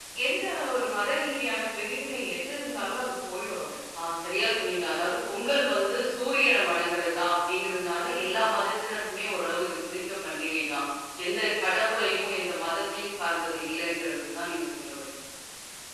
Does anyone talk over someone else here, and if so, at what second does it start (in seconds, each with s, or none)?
none